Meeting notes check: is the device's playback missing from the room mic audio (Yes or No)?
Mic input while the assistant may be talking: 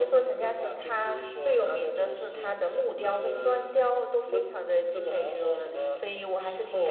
No